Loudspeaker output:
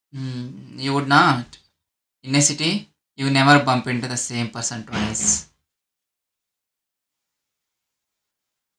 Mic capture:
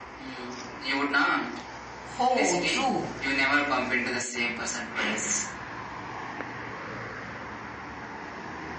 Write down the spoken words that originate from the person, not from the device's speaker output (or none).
Oh, true.